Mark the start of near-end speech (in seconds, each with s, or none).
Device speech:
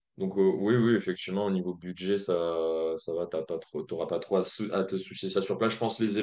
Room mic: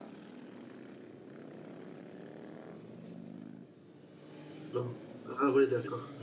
4.7 s